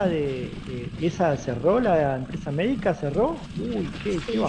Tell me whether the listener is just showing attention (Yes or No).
No